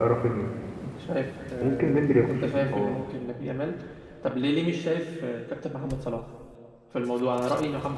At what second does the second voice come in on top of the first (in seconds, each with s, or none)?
1.6 s